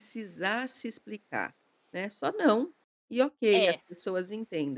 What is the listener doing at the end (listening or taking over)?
listening